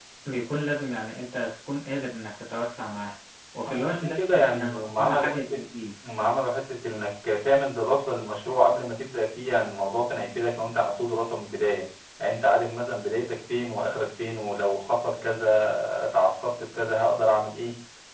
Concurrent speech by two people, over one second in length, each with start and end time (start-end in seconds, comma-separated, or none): 3.7-5.6